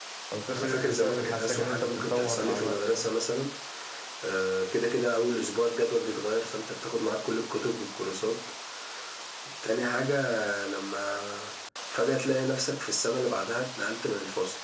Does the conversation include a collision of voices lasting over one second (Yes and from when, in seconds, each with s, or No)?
Yes, from 0.6 s